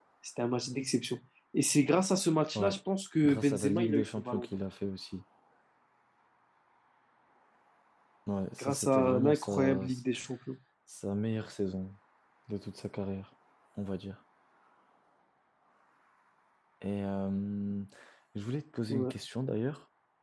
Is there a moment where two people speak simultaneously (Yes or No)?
Yes